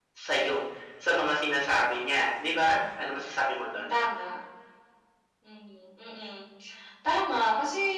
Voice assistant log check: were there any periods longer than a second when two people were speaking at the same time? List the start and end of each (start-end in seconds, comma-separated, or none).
none